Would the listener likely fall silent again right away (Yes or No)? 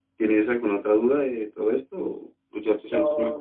No